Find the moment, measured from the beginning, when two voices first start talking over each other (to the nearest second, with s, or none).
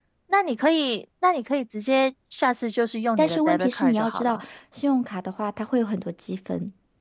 3 s